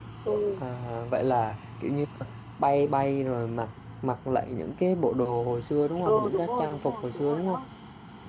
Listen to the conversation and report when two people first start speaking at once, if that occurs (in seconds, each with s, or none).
6.0 s